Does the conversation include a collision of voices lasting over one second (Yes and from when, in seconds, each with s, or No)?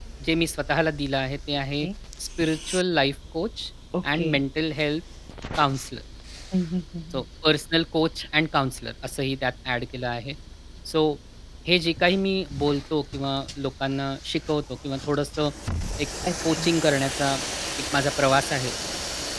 No